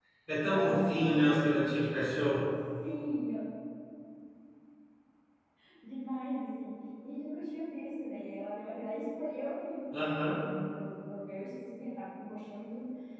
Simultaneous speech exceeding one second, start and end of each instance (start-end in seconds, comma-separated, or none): 0.5-1.8